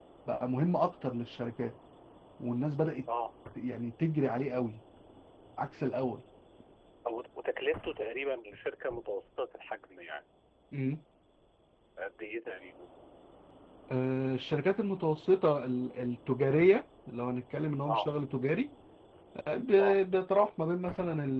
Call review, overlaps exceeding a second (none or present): none